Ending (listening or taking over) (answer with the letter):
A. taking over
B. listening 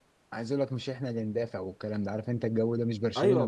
A